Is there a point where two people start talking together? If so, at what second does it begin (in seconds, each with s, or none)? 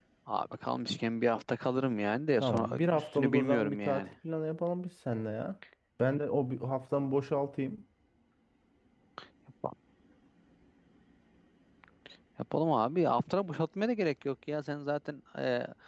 2.4 s